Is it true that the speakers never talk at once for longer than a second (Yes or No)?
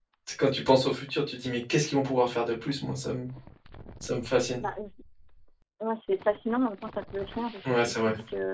Yes